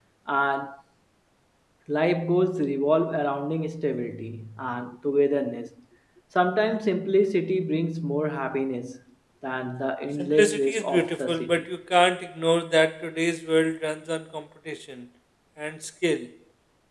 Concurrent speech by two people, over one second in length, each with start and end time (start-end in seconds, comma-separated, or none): 10.2-11.6